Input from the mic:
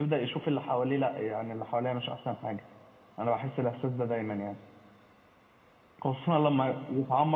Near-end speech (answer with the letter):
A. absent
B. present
B